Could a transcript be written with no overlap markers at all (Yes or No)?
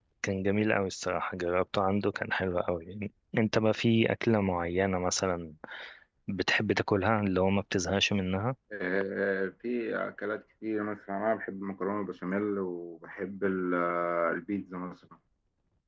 Yes